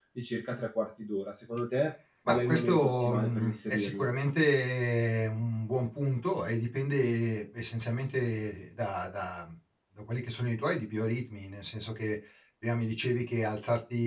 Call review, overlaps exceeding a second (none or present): present